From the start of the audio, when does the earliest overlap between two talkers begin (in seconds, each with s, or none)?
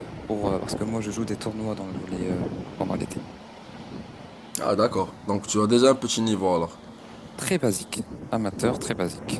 none